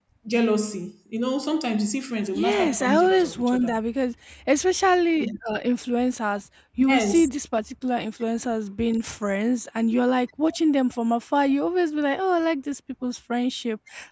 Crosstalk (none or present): present